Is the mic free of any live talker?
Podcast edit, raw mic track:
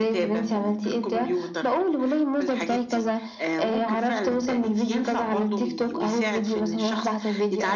Yes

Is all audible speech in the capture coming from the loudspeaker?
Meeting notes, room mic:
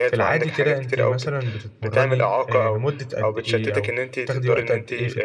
No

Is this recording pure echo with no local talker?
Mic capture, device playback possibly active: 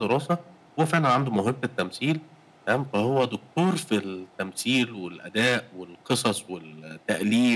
Yes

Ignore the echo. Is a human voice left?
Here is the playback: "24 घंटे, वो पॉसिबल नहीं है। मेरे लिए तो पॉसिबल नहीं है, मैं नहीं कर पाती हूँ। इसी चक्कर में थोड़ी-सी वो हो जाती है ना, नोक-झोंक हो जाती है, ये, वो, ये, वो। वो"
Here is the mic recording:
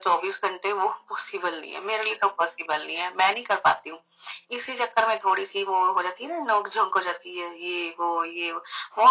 No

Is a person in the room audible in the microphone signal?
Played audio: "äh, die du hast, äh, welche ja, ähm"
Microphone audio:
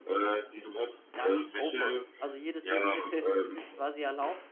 Yes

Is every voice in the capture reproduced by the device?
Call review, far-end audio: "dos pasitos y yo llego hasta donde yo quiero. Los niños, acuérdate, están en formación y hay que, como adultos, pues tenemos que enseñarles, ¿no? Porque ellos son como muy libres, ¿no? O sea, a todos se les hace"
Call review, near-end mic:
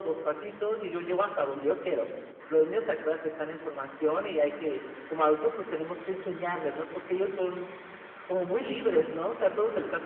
Yes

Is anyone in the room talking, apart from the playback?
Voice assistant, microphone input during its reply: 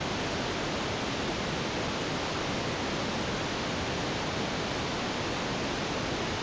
No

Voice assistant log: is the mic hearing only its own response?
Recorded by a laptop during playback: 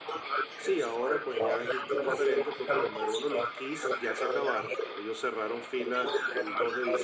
No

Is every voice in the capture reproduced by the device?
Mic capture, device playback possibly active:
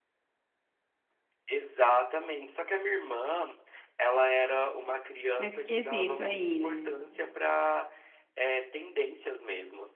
No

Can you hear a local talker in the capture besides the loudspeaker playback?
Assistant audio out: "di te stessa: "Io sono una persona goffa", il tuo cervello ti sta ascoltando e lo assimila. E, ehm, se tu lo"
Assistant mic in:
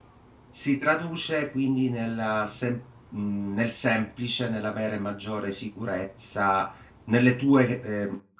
Yes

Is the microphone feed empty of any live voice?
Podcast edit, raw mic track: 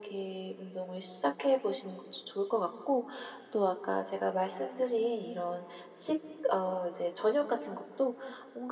Yes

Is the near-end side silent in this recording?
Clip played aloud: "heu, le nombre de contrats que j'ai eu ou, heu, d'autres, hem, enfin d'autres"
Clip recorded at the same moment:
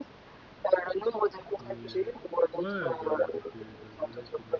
No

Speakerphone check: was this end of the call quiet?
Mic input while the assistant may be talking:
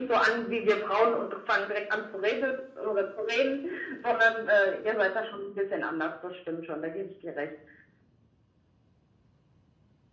Yes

